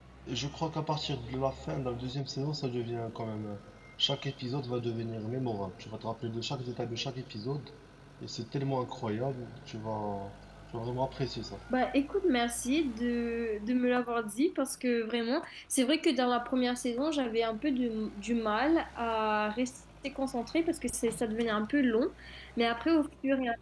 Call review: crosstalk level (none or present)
none